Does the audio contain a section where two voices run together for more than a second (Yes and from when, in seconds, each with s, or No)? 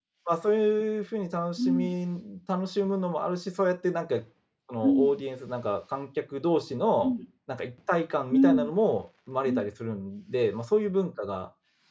No